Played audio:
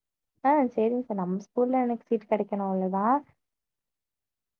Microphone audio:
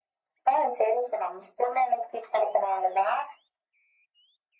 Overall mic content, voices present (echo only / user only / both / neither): echo only